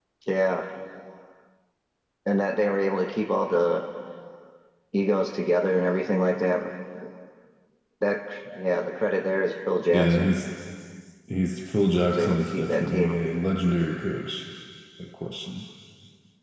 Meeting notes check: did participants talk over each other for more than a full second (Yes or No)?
Yes